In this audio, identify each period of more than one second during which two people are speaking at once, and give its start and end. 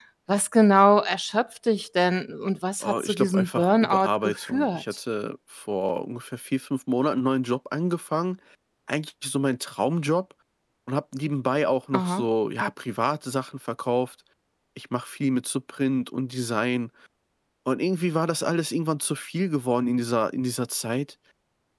2.8-4.8

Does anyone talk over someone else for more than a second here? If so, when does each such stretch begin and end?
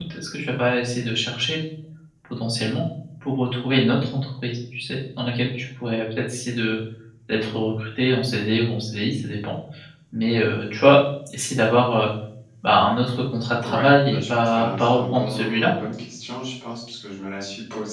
13.6-15.7

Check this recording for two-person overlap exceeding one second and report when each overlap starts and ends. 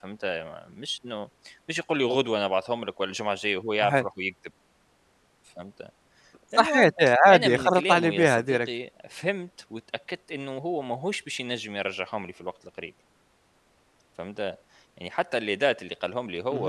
7.3-8.7

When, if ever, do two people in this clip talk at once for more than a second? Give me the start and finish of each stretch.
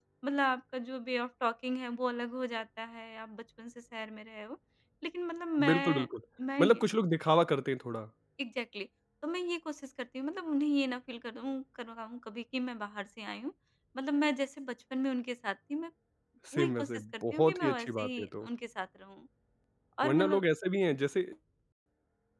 16.5-18.5

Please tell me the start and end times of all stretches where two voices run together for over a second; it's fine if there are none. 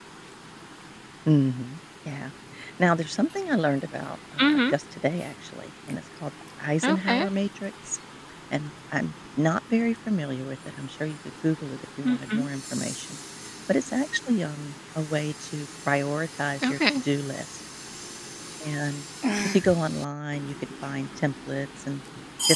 none

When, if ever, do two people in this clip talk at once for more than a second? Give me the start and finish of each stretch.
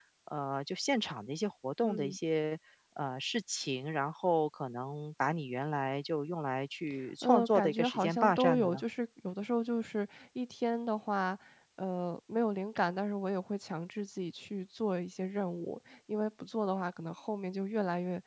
7.2-8.8

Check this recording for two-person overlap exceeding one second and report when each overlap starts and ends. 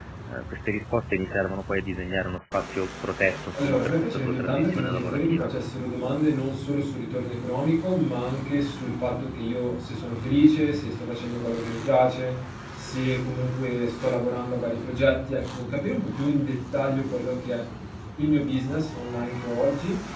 3.5-5.5

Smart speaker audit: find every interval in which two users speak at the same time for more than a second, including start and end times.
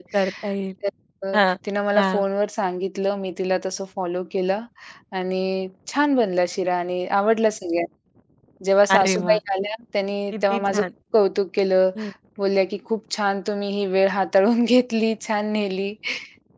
none

